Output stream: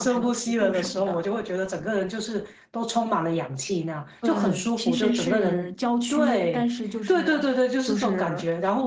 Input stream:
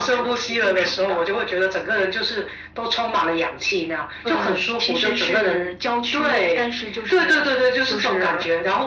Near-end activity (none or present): none